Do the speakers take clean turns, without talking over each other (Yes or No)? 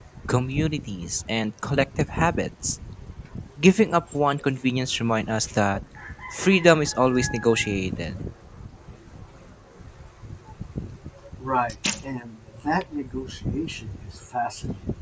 Yes